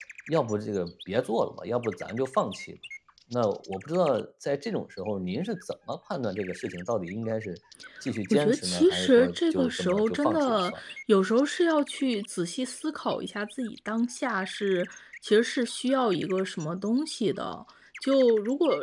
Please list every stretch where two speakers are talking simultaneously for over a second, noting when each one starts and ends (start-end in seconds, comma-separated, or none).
8.3-10.8